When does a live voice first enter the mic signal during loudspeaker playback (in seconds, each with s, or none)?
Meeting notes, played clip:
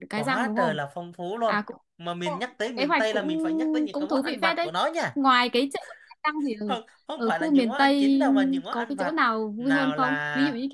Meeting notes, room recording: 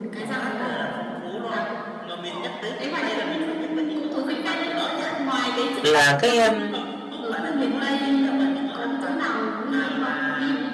5.8 s